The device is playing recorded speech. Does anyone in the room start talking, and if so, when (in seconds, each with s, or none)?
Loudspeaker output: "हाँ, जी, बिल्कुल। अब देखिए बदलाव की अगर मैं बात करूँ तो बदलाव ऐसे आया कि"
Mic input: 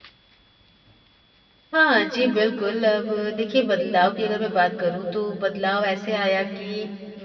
none